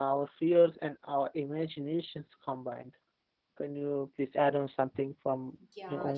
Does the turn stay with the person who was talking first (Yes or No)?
No